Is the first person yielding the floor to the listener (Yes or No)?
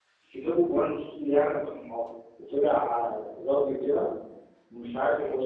No